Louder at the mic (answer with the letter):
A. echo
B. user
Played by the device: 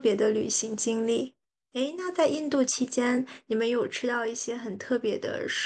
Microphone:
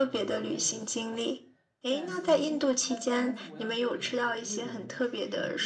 A